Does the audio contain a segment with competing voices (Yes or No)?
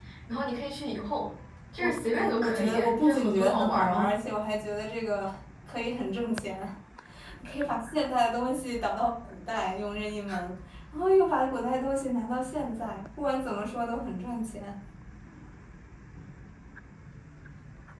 Yes